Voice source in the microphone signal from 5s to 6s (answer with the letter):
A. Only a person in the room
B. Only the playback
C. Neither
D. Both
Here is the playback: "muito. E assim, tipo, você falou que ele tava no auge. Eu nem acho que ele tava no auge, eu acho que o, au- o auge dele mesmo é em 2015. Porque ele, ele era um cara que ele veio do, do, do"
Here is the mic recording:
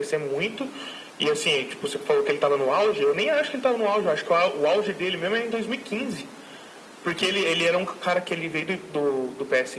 B